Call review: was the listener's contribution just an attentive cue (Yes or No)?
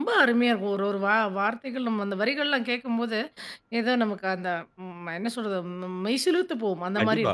No